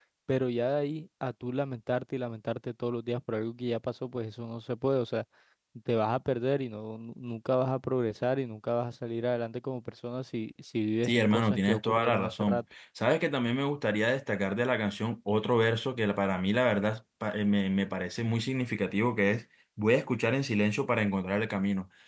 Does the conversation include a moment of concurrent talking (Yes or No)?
Yes